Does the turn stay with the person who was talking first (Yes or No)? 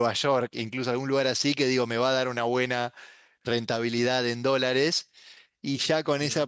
Yes